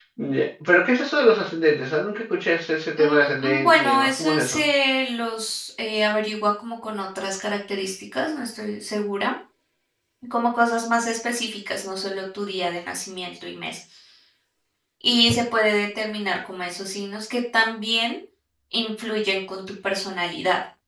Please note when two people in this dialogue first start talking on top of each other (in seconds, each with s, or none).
3.0 s